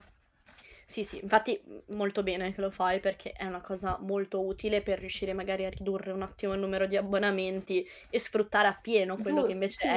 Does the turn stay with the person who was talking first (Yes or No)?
No